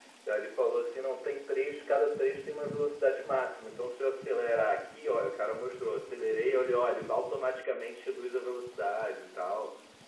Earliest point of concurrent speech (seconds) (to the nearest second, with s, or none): none